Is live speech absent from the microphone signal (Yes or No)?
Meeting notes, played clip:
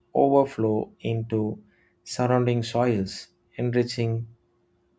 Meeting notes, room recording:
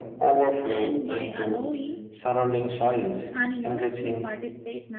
No